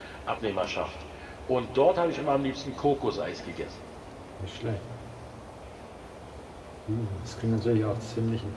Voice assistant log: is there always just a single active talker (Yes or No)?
Yes